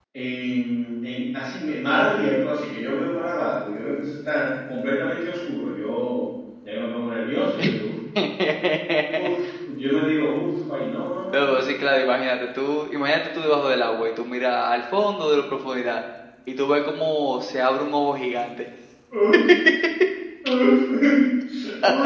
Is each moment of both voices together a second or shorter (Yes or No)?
Yes